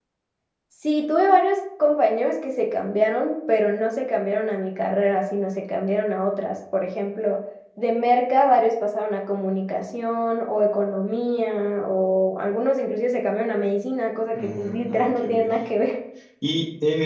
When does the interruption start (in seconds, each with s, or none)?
14.3 s